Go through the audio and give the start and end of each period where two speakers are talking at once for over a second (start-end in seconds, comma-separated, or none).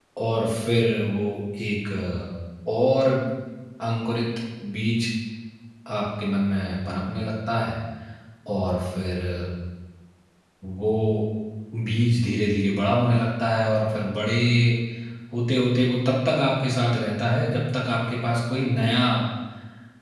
none